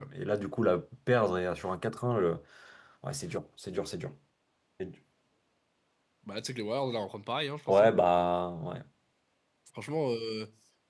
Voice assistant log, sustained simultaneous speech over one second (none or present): none